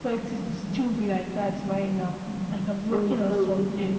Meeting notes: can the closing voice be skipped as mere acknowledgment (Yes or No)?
Yes